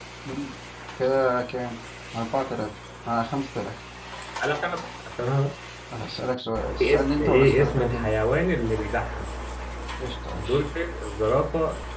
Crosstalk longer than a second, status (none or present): present